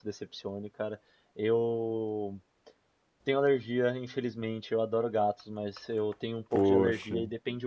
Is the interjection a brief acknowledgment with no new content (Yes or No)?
Yes